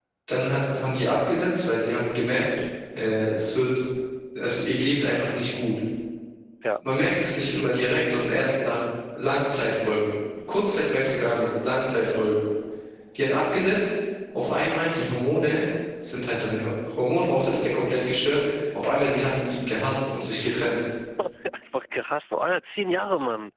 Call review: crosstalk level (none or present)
none